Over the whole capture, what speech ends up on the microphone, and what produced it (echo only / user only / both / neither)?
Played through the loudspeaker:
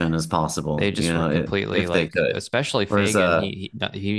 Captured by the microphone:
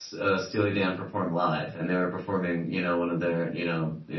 user only